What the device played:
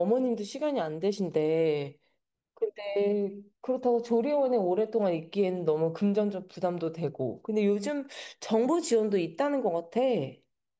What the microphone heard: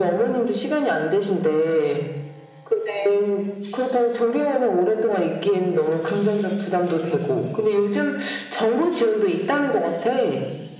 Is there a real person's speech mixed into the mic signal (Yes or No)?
No